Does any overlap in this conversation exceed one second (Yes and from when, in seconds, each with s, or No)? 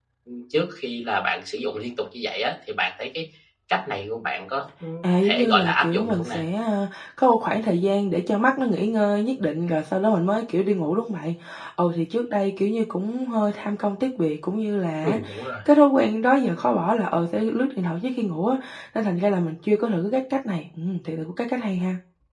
Yes, from 5.0 s